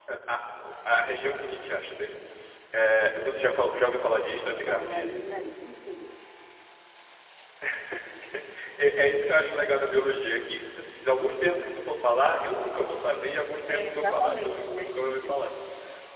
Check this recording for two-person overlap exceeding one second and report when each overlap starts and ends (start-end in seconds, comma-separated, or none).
13.7-15.5